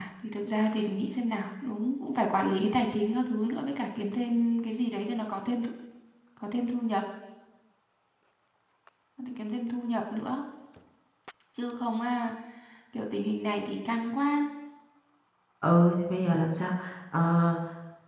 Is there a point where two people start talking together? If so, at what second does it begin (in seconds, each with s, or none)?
none